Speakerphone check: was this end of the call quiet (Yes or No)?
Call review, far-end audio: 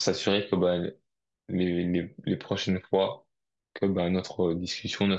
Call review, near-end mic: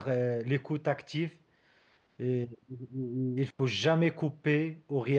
No